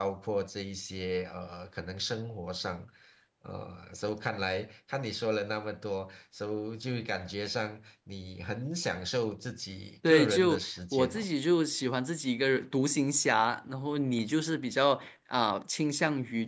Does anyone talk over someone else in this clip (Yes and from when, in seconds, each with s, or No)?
Yes, from 10.0 s